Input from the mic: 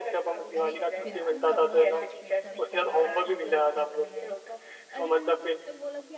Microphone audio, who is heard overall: both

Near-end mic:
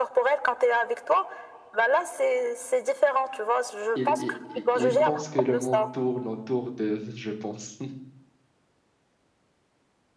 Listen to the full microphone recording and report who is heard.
both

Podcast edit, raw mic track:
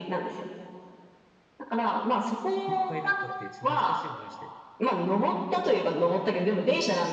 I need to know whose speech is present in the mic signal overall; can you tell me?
both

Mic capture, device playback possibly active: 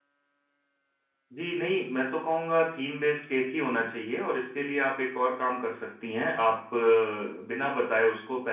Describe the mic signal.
user only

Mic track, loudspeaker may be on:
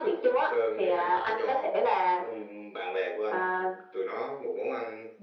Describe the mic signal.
echo only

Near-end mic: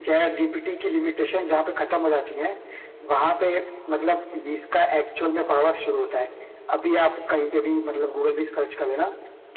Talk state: echo only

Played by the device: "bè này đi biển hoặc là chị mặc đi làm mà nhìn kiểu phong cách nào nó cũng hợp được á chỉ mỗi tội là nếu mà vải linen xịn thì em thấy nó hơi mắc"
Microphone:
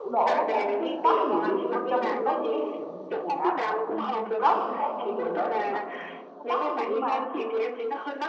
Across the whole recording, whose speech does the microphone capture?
both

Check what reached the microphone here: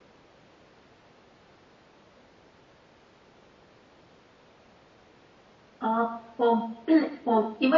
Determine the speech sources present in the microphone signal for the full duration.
user only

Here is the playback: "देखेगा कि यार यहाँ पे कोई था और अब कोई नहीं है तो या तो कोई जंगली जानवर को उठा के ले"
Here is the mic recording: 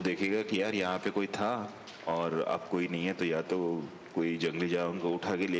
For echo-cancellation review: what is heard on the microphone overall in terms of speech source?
echo only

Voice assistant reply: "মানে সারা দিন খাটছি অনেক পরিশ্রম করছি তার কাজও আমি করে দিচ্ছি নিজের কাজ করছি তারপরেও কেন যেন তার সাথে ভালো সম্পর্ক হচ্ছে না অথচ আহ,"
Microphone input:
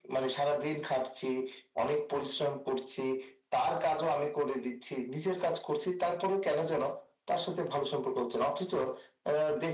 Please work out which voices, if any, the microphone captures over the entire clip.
echo only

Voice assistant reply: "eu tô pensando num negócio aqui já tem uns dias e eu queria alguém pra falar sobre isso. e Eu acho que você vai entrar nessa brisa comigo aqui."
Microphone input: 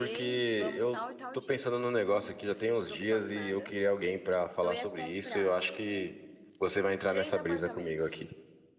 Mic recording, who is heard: both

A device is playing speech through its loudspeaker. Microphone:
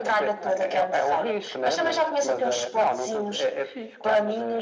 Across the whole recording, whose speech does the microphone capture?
echo only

